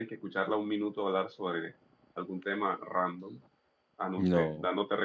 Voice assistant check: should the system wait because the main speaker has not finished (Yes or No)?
Yes